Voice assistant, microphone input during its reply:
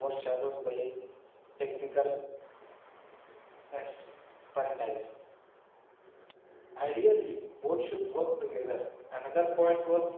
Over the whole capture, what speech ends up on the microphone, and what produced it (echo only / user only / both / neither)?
user only